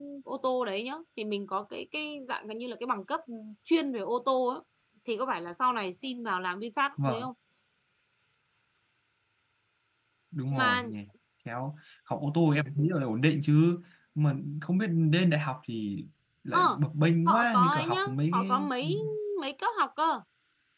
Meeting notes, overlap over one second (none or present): present